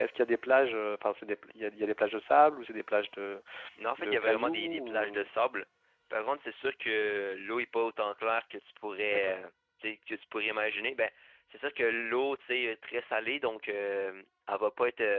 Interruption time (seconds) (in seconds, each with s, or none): 4.0 s